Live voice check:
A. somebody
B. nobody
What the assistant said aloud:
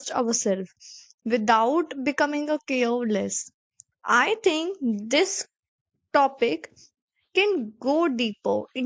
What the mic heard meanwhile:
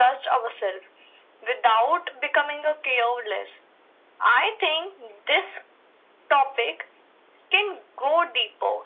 B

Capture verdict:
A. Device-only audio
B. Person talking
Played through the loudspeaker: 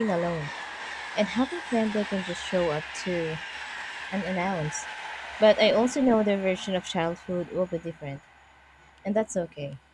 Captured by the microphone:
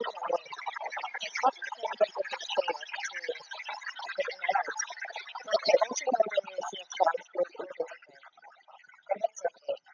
A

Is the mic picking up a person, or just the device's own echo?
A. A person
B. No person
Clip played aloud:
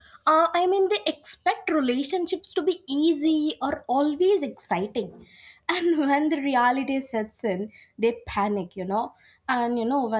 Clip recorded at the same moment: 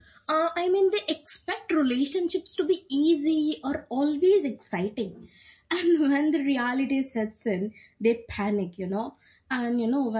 B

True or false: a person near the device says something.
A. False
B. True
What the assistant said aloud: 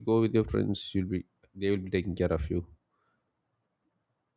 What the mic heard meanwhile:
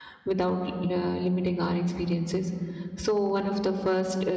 B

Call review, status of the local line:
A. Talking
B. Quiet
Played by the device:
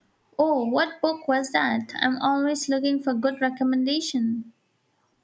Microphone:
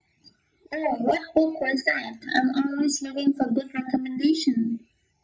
B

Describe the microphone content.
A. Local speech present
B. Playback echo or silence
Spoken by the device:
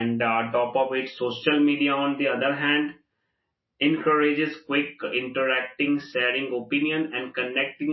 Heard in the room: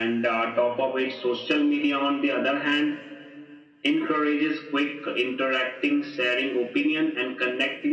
B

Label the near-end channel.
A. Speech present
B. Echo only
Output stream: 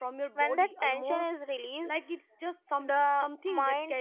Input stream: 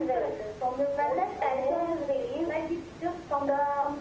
B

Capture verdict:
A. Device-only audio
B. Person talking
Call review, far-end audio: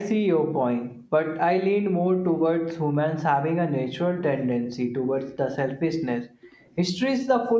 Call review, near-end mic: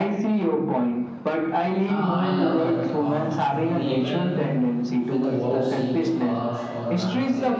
B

